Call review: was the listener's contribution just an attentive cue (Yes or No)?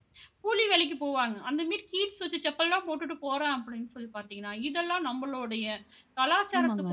No